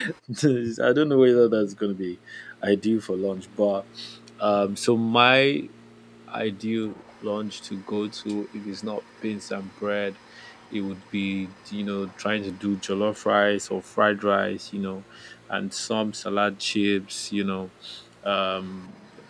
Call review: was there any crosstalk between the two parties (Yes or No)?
No